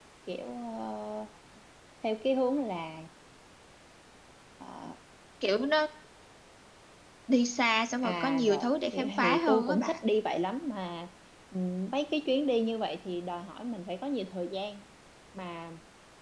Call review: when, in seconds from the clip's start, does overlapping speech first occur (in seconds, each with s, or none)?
8.0 s